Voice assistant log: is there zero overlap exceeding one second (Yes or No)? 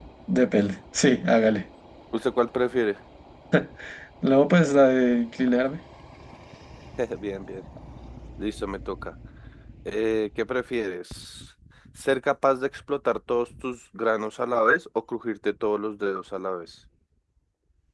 Yes